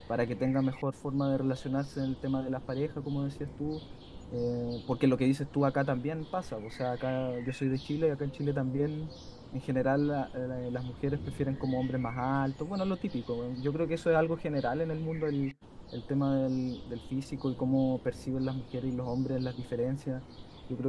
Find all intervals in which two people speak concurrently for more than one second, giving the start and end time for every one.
none

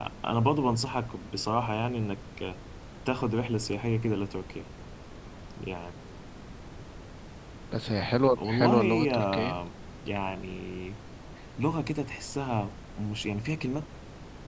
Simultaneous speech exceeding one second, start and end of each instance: 8.4-9.6

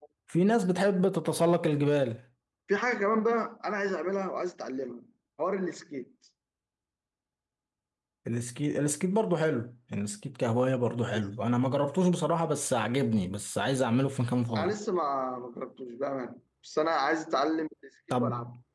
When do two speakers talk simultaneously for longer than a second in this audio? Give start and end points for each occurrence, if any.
none

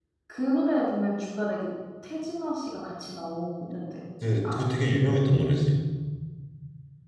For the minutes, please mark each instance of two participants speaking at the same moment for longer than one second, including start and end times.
none

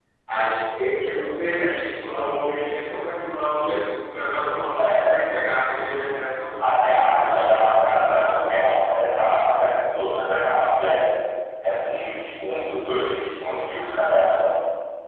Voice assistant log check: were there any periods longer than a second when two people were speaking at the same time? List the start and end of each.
6.7-8.5

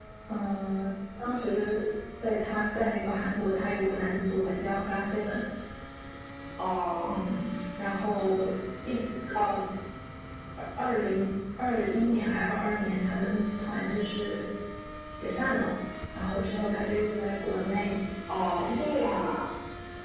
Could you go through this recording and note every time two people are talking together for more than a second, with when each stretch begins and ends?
none

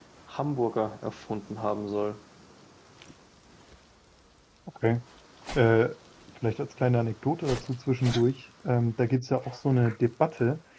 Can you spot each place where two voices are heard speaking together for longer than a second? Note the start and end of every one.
none

